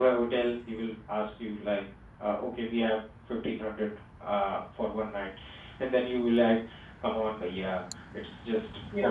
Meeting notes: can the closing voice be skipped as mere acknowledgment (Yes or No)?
Yes